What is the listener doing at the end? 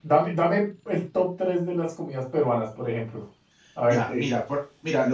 taking over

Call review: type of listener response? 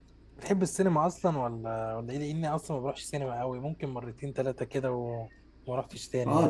taking over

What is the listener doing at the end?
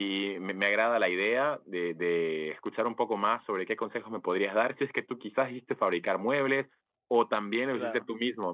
listening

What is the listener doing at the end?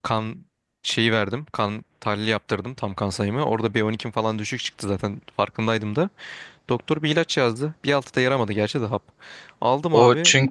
taking over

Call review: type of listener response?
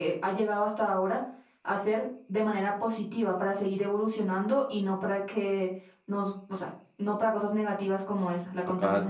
taking over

